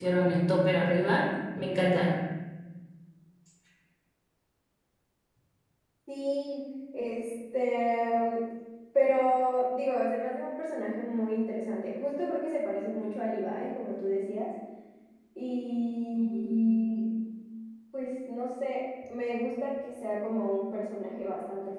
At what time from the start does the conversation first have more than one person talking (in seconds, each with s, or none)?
none